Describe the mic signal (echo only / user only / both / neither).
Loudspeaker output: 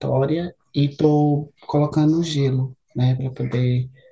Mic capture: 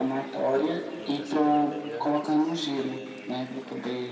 both